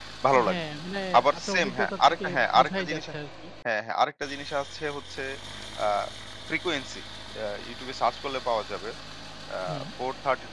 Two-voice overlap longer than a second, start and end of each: 1.4-3.1

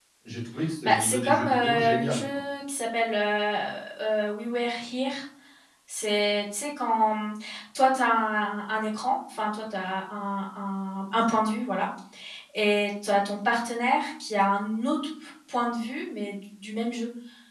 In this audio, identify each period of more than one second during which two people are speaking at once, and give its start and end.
0.8-2.2

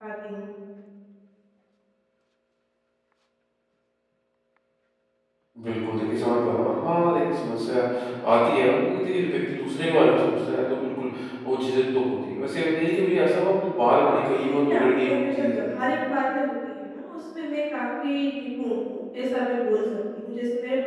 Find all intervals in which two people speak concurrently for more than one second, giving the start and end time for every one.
13.9-15.8

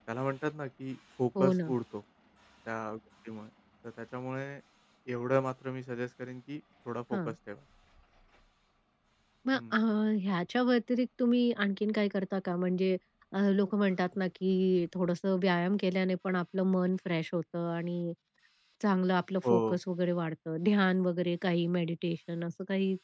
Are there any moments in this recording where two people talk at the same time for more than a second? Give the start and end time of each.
none

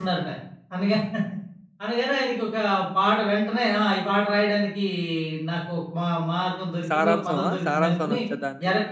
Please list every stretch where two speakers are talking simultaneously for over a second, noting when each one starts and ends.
6.9-8.2

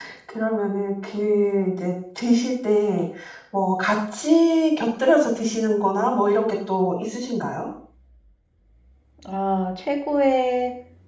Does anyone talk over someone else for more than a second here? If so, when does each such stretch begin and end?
none

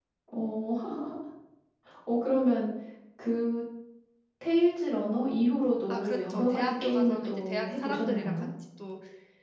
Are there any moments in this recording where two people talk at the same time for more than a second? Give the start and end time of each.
5.9-8.4

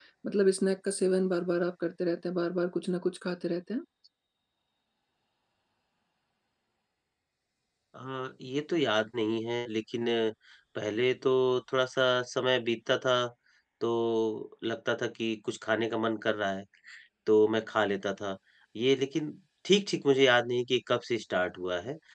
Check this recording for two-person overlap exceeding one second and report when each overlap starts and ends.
none

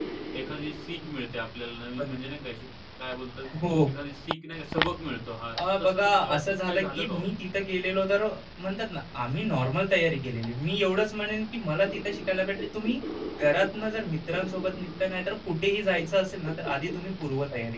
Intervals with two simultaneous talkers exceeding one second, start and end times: 5.5-7.2

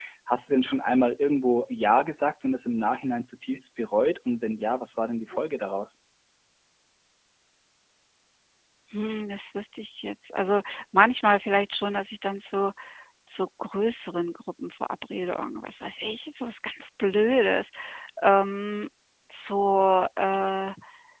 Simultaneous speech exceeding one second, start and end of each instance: none

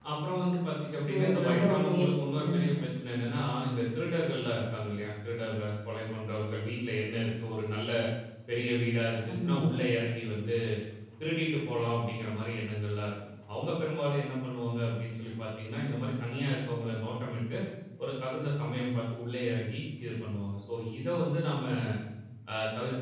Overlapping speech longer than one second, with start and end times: 1.1-2.7

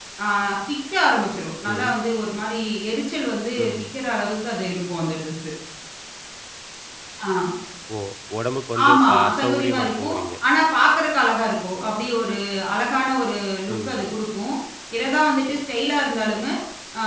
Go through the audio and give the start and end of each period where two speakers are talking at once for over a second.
8.9-10.2

